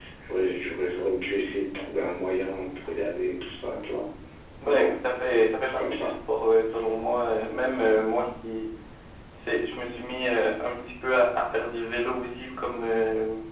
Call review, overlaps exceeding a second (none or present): none